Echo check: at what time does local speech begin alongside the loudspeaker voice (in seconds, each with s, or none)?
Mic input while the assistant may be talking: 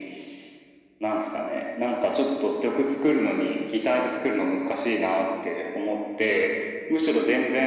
none